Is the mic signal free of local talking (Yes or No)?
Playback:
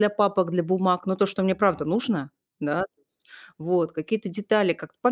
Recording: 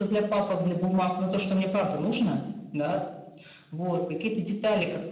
Yes